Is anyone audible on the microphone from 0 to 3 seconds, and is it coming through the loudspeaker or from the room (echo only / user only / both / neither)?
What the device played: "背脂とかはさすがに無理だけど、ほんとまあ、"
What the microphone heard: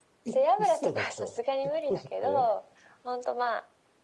both